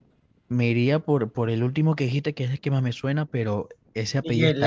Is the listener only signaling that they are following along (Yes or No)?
Yes